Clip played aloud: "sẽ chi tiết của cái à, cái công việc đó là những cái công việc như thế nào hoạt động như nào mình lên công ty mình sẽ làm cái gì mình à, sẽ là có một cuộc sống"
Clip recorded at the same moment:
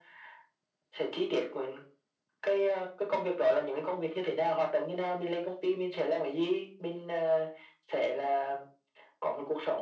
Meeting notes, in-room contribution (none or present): none